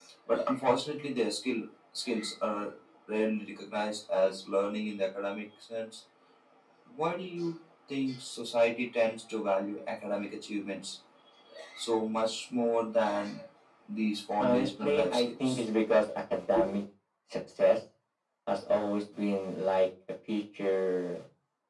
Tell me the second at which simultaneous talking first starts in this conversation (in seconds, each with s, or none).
14.4 s